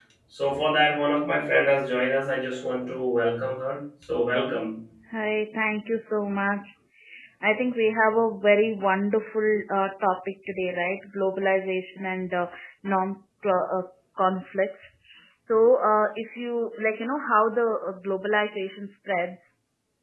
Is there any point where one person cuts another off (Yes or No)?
No